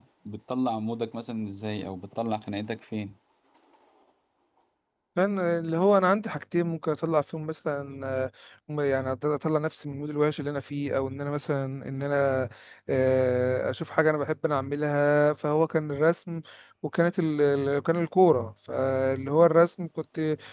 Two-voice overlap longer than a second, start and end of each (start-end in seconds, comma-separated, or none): none